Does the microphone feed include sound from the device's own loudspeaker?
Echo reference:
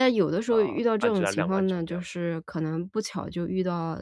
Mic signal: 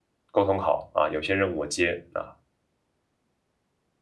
No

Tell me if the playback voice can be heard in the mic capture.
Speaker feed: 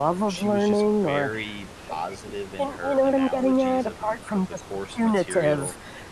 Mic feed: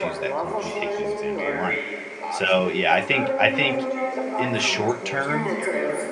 Yes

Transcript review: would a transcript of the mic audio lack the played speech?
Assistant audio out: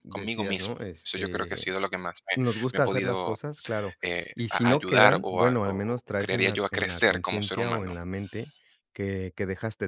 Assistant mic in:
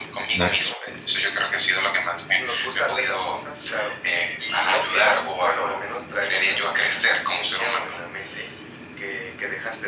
No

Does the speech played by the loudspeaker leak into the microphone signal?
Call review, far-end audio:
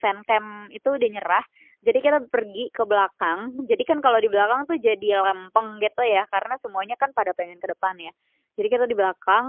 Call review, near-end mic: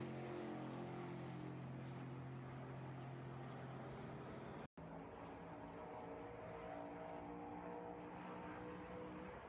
No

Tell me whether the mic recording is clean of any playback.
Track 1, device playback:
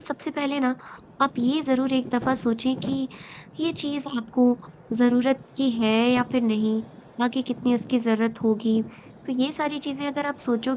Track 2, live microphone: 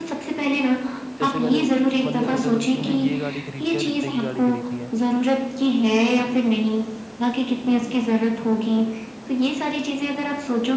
No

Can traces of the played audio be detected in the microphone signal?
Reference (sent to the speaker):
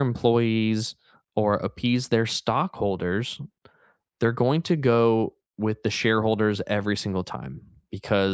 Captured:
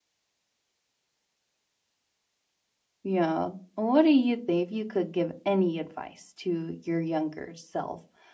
No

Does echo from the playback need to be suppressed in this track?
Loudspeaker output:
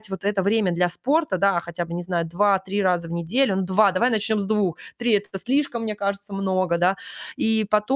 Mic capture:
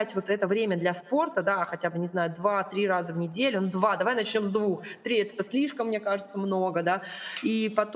Yes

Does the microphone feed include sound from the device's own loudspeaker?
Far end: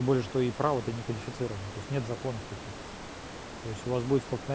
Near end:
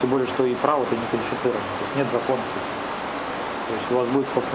Yes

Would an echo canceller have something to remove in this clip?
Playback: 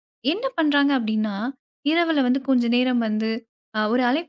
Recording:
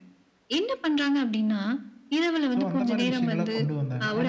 Yes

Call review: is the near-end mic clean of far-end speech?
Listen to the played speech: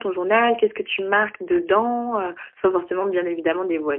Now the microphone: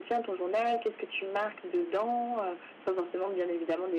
No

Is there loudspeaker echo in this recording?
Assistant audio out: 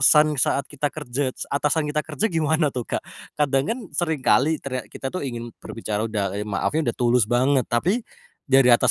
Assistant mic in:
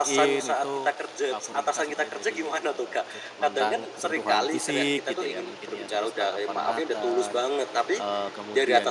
Yes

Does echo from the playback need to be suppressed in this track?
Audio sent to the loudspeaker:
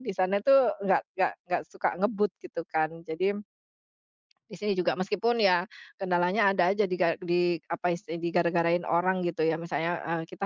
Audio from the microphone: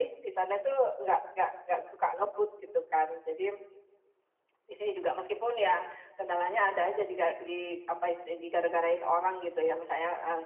Yes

